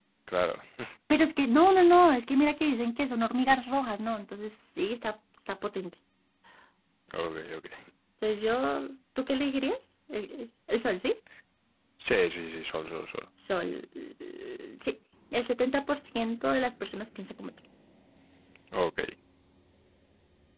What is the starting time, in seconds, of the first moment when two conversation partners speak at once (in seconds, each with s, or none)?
none